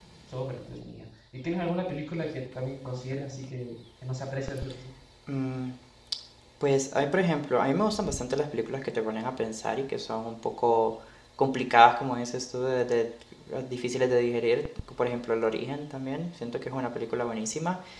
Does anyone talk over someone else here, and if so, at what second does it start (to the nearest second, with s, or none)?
none